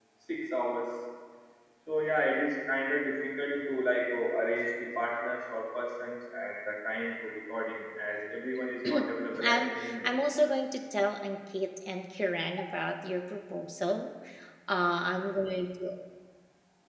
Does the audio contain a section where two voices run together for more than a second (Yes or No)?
Yes